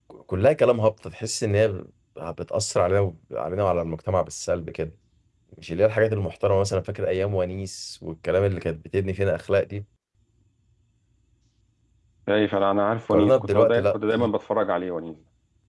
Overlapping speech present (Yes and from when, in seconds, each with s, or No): Yes, from 13.1 s